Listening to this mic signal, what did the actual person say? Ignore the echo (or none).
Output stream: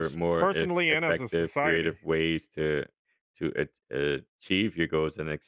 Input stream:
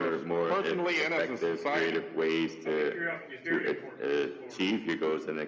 I think curiosity is very important for explorers.